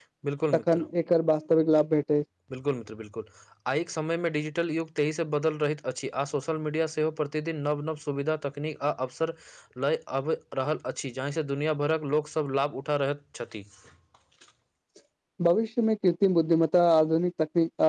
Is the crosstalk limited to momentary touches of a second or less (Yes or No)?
Yes